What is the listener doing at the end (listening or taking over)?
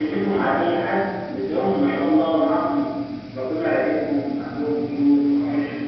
taking over